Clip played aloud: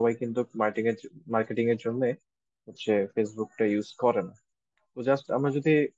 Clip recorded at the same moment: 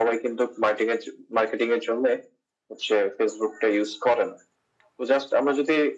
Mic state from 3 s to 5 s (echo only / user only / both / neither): echo only